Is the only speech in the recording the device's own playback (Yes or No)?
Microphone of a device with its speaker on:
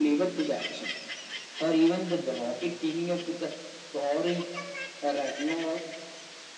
Yes